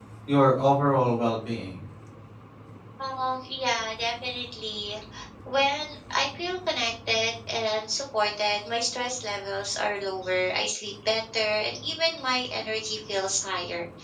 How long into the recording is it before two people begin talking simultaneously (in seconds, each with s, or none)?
none